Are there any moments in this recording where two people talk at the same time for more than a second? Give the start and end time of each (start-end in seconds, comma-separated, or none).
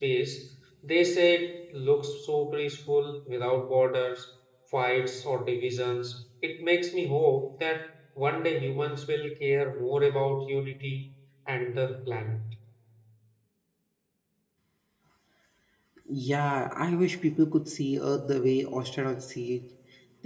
none